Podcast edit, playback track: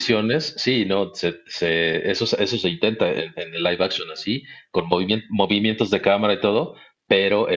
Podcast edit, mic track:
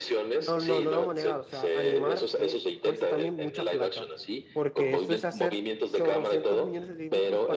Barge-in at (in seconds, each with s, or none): 0.4 s